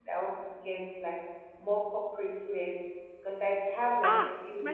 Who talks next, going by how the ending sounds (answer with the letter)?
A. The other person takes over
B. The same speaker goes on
A